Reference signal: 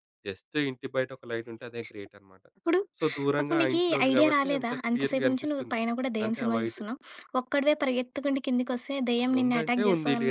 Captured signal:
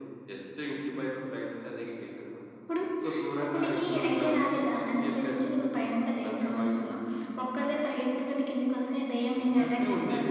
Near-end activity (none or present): none